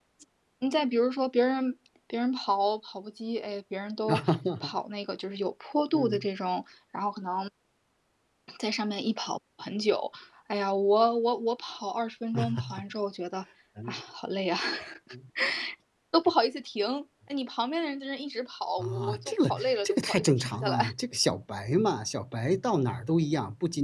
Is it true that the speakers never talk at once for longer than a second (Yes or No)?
No